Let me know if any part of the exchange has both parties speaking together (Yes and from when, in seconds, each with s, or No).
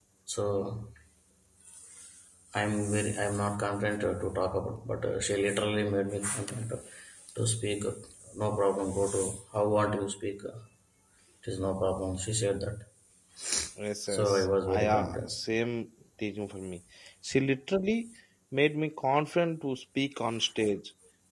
Yes, from 14.1 s